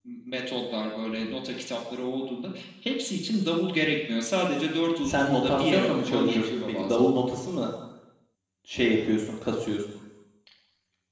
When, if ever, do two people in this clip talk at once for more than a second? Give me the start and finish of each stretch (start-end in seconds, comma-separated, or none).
5.0-7.0